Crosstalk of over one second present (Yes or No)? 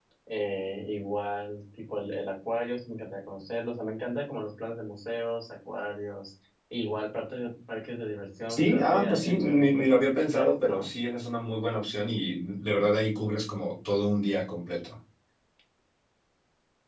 Yes